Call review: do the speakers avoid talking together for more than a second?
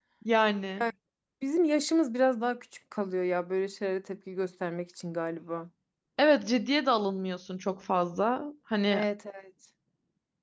Yes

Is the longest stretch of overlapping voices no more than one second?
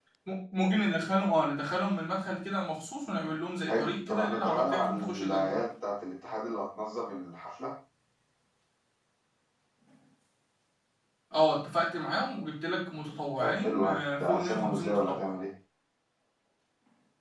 No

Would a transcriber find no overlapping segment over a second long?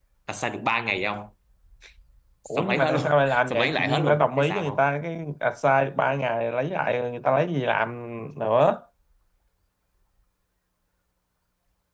No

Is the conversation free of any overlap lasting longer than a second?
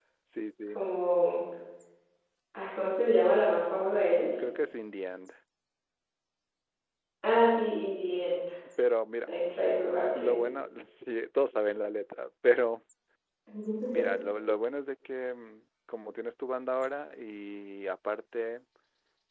Yes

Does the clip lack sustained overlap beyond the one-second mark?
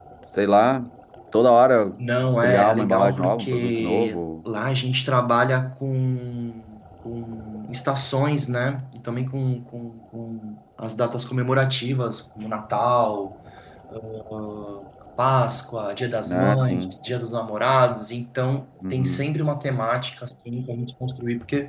No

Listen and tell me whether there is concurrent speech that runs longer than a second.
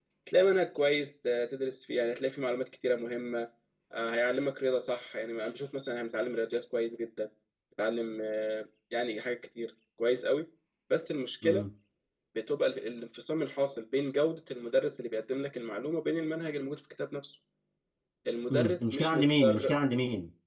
Yes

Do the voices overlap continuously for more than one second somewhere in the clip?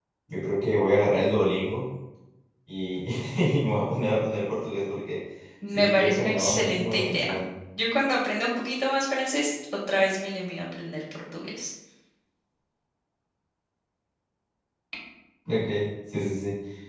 Yes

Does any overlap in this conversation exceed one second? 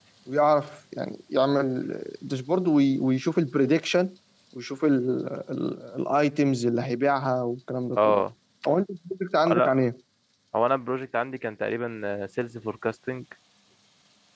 No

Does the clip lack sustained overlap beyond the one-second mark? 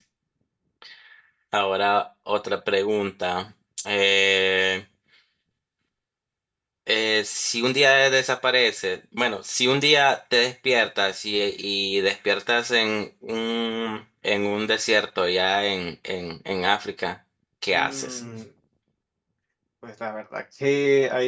Yes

